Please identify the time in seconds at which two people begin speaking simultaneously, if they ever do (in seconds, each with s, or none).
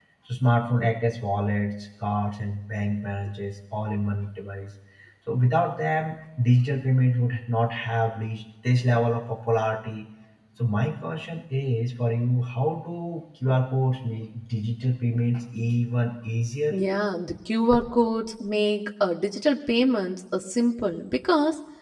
none